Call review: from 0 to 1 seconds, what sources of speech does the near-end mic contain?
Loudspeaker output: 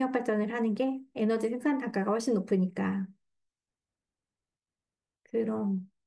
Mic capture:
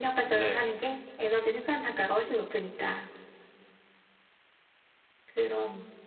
both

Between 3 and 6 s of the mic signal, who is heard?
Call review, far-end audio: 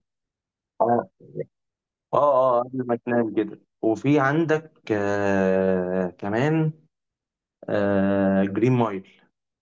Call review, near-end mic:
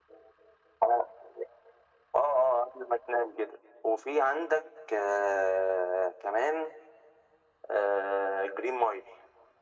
echo only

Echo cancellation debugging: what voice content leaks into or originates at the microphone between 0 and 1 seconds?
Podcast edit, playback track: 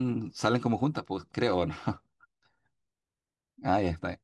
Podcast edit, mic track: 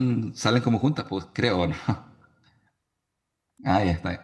echo only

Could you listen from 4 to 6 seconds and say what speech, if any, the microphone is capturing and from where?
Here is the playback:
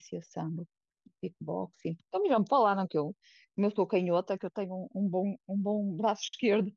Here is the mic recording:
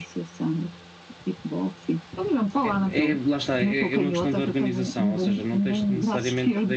both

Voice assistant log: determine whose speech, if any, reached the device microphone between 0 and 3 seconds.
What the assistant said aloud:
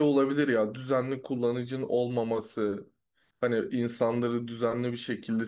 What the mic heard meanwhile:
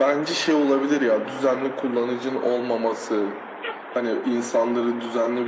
echo only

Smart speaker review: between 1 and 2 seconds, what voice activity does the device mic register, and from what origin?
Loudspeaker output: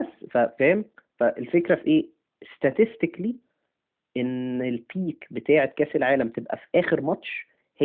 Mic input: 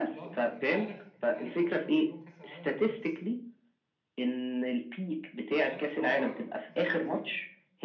both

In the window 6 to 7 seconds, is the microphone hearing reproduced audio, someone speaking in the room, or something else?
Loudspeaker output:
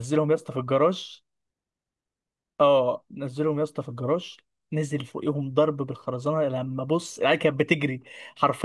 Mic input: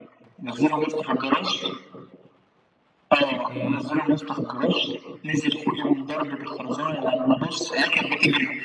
echo only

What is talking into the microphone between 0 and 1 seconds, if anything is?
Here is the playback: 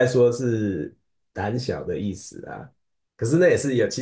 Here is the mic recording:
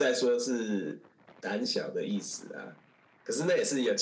echo only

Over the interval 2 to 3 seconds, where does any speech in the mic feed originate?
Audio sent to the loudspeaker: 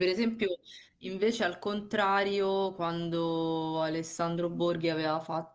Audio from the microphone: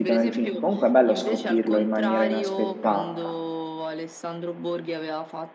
both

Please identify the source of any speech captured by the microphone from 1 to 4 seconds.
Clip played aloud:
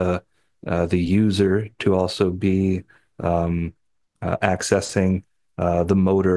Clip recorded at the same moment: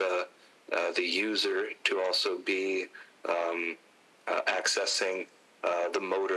echo only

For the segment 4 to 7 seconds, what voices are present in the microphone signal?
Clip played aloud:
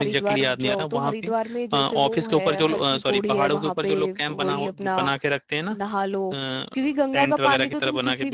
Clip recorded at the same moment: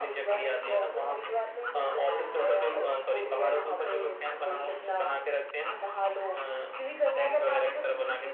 echo only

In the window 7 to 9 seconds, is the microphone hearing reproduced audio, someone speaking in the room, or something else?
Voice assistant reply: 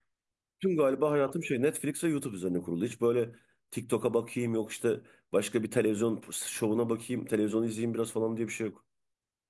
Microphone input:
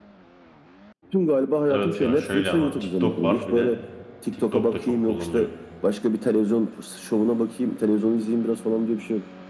echo only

